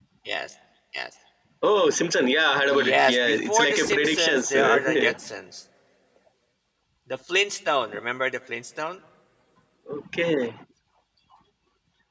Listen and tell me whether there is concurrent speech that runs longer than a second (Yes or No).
Yes